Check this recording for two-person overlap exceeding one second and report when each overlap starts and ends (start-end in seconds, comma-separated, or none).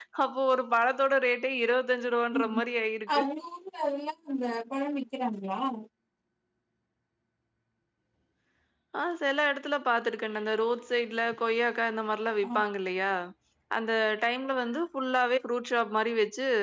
none